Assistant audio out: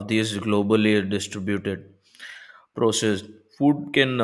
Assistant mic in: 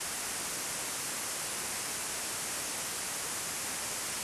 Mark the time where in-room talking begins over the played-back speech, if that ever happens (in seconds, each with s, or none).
none